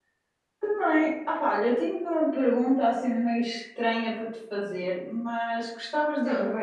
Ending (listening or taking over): listening